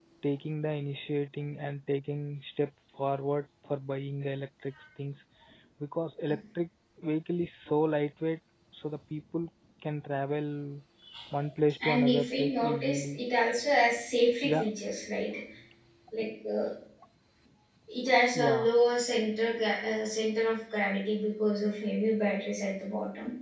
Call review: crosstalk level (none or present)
present